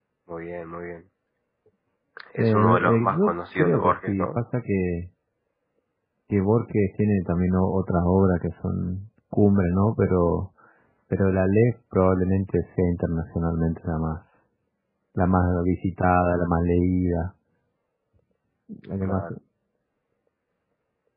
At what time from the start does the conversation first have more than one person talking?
2.4 s

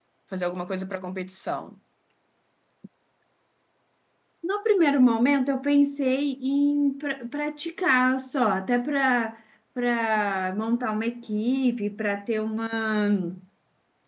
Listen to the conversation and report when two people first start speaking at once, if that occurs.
none

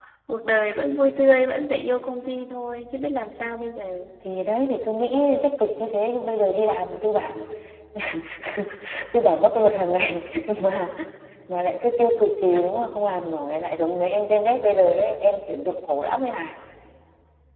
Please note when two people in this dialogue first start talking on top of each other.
none

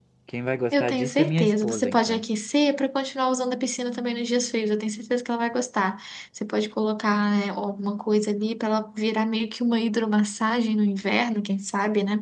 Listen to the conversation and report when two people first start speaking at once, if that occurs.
0.7 s

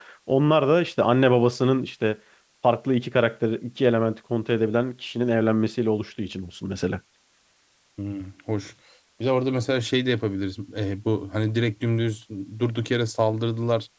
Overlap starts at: none

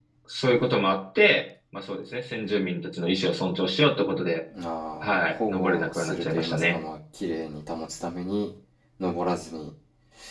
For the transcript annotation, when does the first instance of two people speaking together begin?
5.0 s

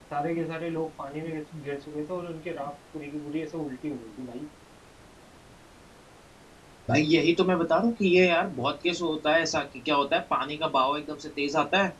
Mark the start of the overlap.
none

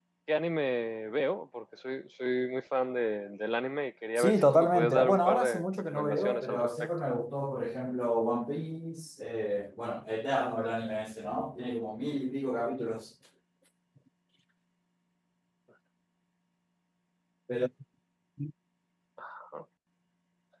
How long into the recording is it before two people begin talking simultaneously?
4.2 s

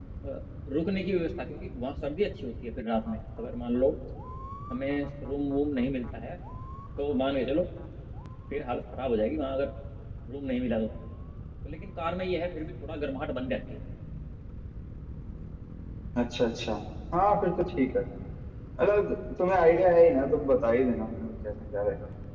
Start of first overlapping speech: none

